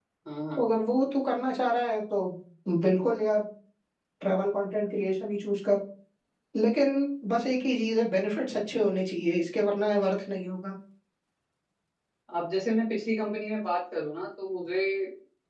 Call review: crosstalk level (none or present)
none